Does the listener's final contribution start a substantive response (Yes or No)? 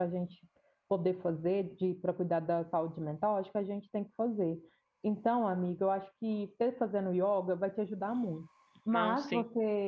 No